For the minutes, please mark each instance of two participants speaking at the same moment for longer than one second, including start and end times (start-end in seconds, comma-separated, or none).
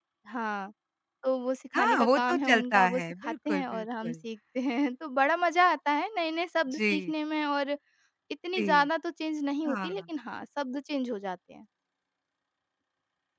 1.8-4.2